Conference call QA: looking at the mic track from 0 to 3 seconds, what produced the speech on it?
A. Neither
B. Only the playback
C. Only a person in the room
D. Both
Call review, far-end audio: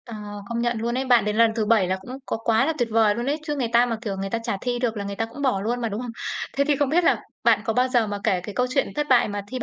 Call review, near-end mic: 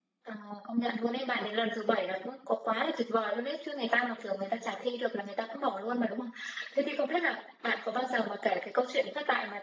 B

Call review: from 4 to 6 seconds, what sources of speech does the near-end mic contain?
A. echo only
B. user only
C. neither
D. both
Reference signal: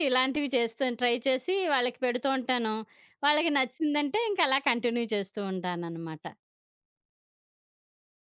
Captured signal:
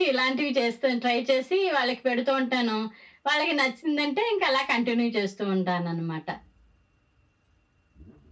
A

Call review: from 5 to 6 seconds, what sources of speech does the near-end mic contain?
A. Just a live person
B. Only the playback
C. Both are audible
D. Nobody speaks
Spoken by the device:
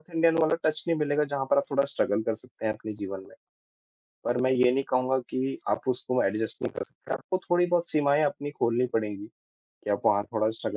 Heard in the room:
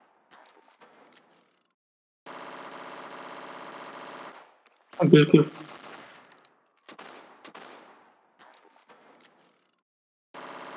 A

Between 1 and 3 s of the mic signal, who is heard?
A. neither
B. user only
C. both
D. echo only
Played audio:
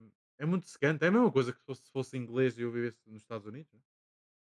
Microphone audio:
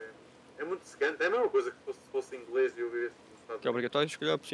D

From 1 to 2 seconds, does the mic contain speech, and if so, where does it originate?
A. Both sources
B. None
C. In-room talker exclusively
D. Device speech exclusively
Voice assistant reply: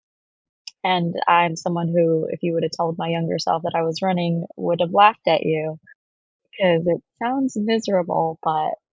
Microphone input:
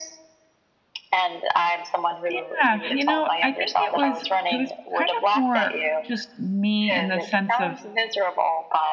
D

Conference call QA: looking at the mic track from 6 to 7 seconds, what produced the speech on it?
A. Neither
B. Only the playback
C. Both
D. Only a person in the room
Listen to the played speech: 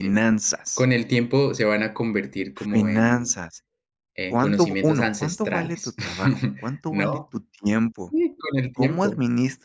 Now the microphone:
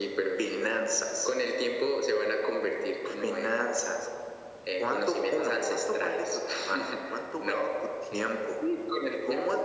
B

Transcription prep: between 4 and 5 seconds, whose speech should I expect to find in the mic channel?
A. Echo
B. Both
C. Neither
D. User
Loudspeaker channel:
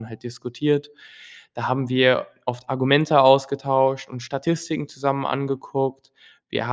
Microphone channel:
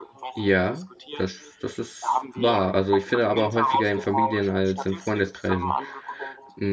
B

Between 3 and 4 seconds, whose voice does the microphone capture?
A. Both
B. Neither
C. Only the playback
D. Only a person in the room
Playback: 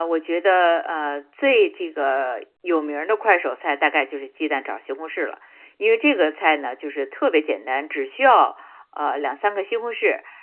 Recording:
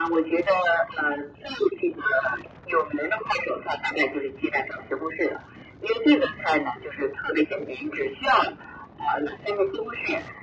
C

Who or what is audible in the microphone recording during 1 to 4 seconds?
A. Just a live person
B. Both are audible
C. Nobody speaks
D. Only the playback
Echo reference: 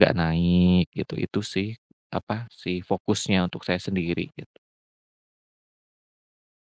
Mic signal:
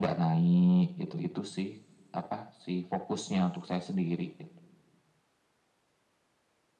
D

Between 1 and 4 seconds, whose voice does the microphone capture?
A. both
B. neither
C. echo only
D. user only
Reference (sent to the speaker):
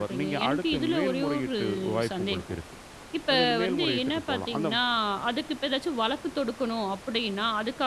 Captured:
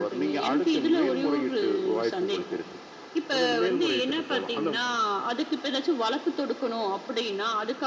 C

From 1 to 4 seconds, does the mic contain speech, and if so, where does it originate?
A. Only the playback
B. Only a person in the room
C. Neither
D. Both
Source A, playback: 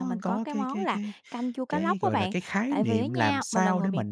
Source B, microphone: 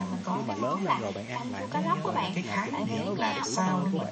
D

